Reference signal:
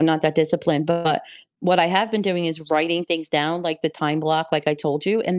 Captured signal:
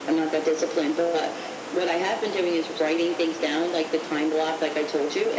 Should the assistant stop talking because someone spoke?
No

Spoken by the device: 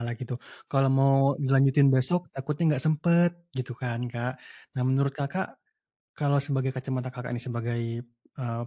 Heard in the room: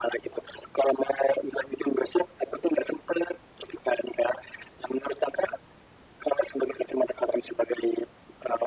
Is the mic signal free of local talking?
Yes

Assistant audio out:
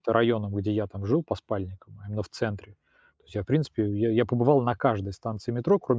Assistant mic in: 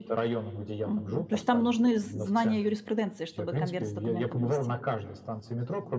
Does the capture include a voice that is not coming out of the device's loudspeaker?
Yes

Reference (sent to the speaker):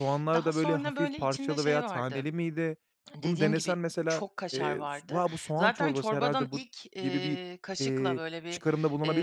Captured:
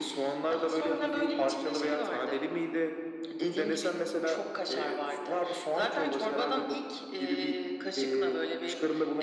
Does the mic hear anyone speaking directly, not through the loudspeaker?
No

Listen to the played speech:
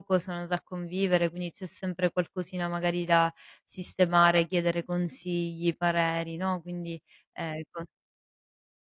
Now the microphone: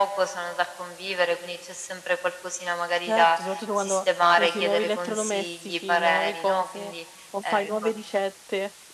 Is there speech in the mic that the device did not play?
Yes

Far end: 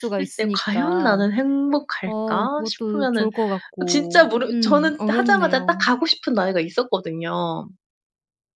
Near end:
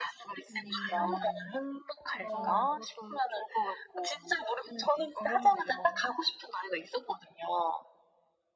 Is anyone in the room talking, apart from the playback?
Yes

